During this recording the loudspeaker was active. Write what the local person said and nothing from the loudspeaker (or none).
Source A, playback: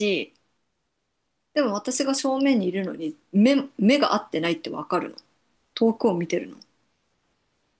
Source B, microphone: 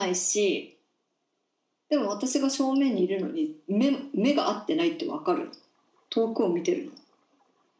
none